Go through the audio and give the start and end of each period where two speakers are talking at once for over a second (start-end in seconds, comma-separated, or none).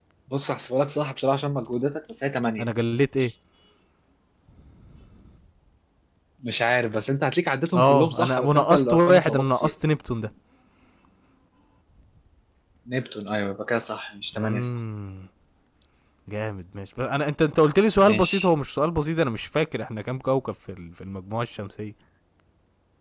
7.8-9.7